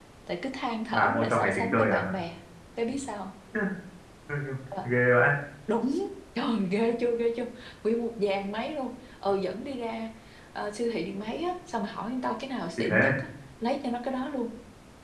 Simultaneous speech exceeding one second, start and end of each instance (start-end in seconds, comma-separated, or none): 0.9-2.2